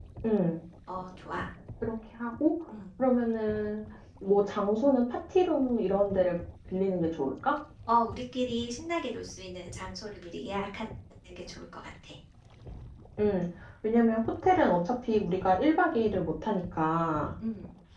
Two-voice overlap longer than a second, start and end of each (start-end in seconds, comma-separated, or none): none